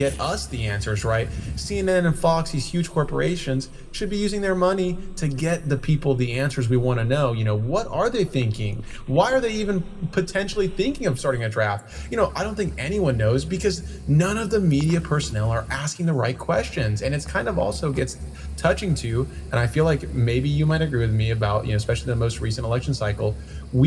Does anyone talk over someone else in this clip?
No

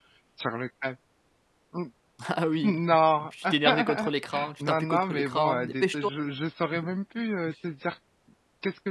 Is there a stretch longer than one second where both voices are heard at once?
Yes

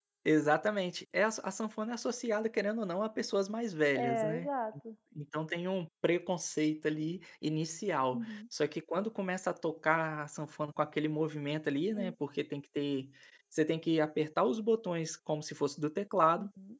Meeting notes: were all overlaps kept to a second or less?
Yes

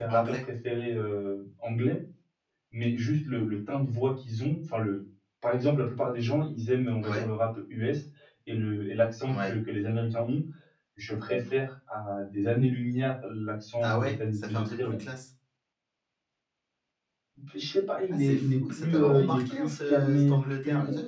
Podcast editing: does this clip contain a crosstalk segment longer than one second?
Yes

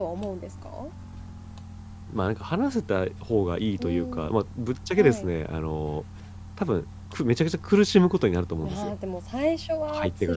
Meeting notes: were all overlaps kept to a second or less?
Yes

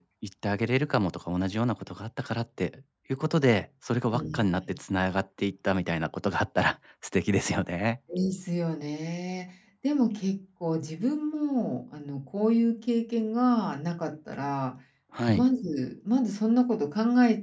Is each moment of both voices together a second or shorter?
Yes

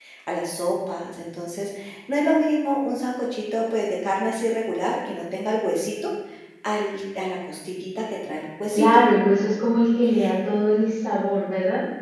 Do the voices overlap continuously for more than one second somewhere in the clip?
No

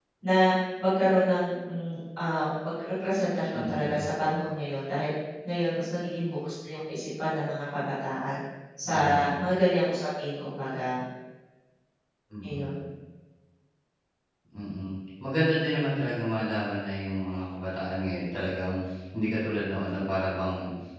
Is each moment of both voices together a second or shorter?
Yes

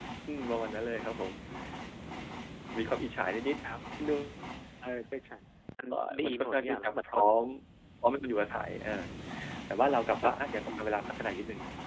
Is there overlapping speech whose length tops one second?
Yes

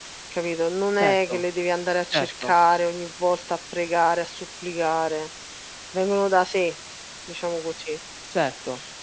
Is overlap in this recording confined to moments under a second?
Yes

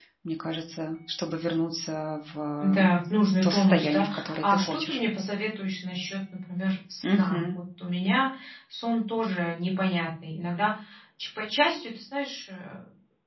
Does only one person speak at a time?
No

